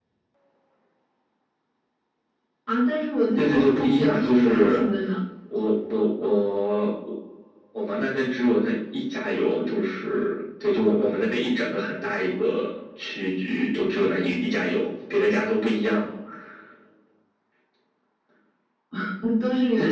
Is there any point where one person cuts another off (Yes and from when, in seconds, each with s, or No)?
Yes, from 3.4 s